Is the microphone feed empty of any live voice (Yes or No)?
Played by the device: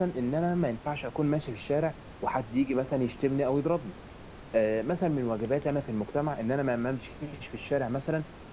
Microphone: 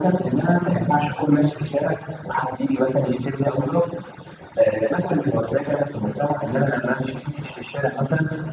Yes